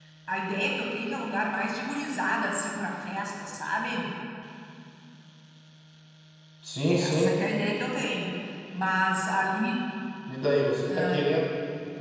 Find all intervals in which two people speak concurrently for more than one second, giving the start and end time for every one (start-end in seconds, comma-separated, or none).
none